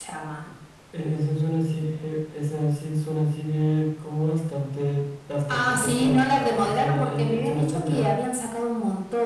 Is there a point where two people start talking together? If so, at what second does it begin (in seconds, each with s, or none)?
5.5 s